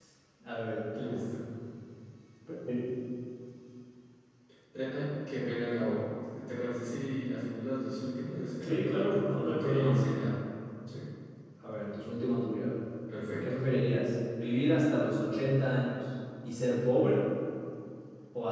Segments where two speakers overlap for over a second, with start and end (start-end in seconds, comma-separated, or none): 8.6-10.0